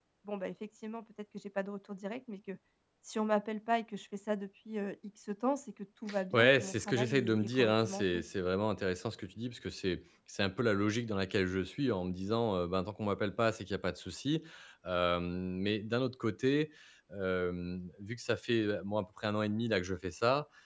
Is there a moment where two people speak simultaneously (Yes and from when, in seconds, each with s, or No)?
Yes, from 6.1 s